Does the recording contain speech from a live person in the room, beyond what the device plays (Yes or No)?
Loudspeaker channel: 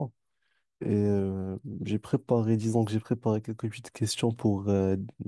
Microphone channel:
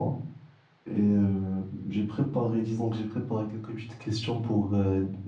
No